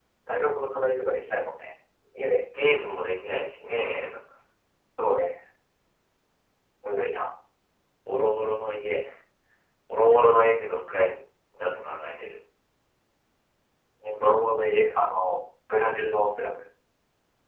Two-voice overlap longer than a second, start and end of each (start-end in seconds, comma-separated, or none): none